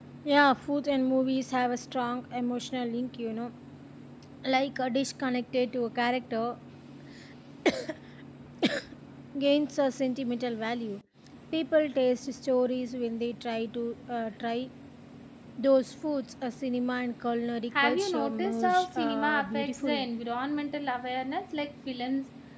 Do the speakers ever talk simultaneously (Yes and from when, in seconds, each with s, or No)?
Yes, from 17.8 s